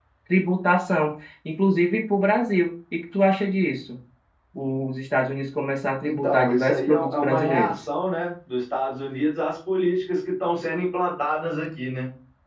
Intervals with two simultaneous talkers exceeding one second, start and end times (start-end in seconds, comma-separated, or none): 6.0-7.8